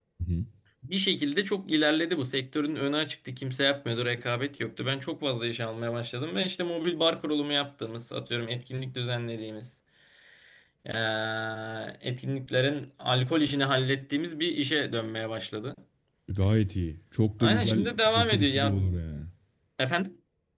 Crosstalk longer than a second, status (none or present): present